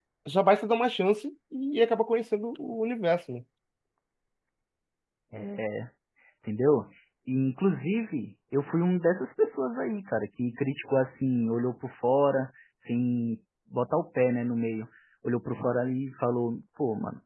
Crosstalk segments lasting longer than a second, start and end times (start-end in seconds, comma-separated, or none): none